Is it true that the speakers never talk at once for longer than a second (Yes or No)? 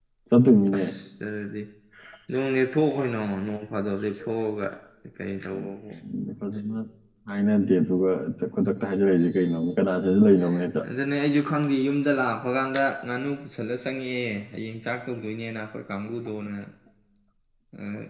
Yes